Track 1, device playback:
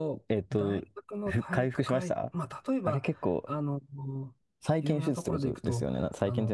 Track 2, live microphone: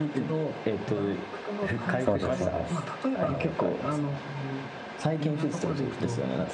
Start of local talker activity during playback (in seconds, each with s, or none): 2.0 s